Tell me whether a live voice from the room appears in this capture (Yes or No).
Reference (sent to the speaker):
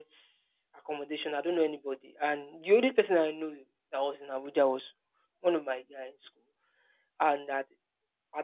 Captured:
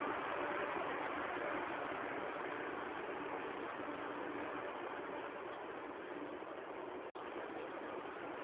No